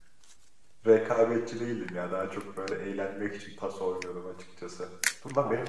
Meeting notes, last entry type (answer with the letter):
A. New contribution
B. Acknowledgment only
B